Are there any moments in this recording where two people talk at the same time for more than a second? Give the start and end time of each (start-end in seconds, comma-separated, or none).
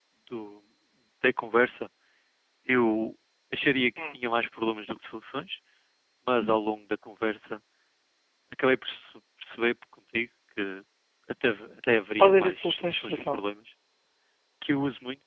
12.2-13.4